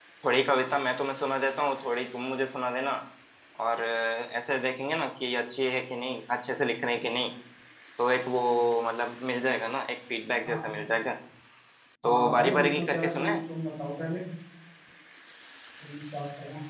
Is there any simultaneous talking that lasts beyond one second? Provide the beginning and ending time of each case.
12.0-13.4

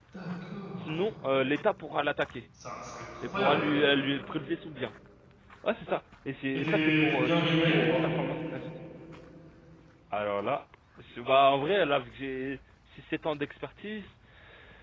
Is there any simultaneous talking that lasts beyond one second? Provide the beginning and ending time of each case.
6.5-7.9

